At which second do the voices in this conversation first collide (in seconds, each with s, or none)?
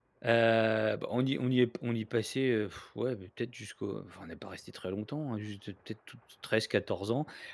none